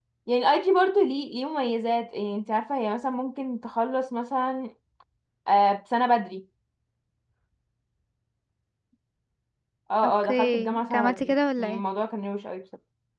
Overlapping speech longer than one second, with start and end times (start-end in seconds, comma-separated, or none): 10.0-11.8